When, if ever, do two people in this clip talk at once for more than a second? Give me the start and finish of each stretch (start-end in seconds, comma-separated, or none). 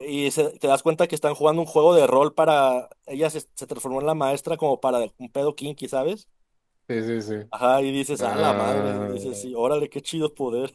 8.2-9.4